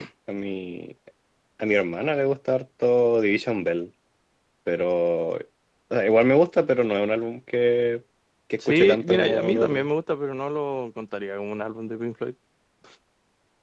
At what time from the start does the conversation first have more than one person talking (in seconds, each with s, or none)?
8.7 s